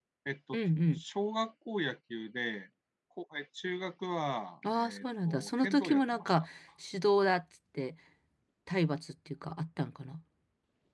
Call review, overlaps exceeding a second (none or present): present